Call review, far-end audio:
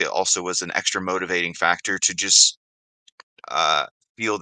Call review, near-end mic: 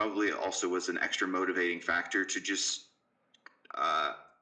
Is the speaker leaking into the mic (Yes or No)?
Yes